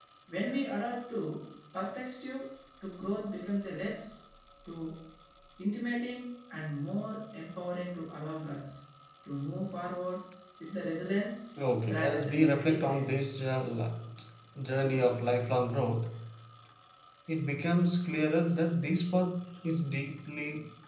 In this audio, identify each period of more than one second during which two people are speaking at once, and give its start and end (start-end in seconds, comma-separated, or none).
11.8-13.1